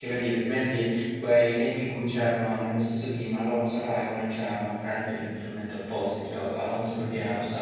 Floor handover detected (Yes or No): No